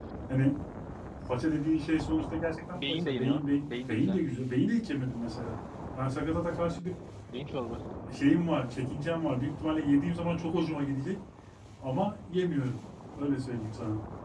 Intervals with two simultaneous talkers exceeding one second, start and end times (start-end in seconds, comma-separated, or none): 2.7-4.2